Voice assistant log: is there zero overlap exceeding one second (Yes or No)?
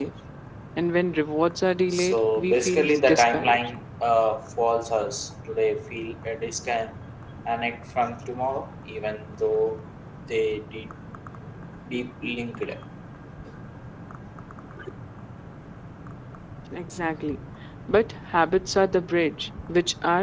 No